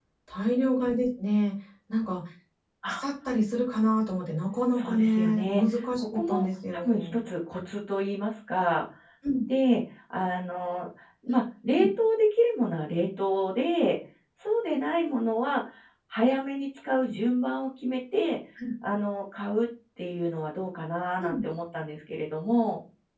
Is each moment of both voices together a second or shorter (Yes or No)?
No